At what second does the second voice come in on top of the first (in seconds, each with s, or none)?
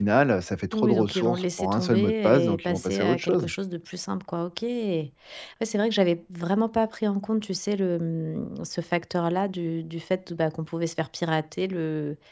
0.7 s